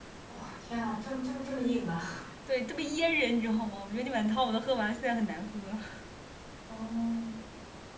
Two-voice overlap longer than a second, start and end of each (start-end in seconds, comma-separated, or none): none